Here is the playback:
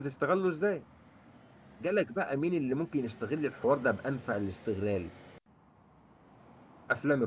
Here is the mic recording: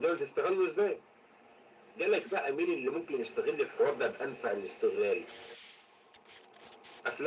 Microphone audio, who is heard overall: echo only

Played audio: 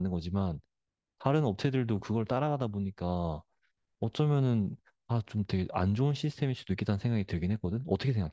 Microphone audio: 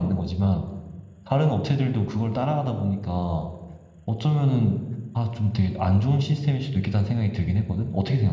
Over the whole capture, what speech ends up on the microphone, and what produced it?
echo only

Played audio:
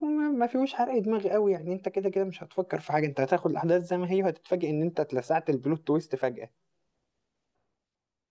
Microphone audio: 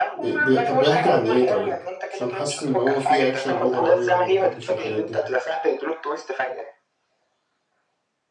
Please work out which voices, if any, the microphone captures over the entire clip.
both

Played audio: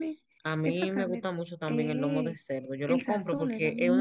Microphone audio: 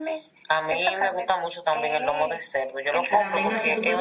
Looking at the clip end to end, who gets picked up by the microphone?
both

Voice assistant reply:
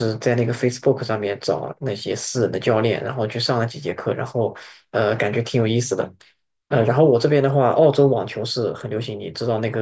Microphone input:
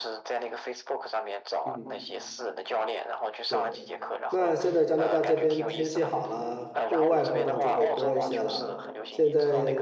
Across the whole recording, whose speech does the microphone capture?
both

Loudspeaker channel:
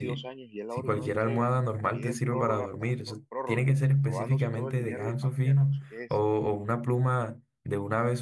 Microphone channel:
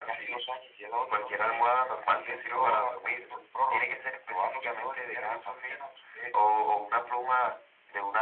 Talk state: echo only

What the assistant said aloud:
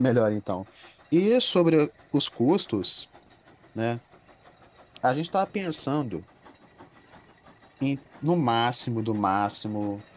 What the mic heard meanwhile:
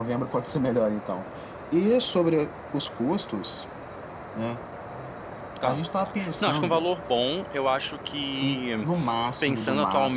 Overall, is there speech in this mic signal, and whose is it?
both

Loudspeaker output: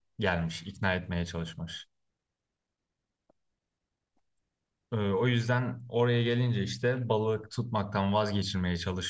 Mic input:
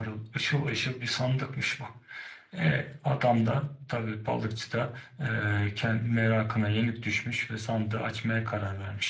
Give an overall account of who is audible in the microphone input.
user only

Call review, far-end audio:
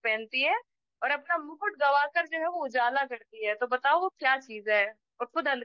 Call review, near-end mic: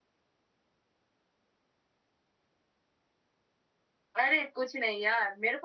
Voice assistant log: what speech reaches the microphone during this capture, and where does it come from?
user only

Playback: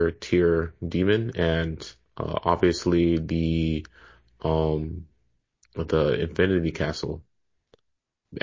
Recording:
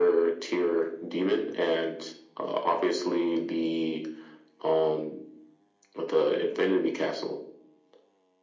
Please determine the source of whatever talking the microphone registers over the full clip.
echo only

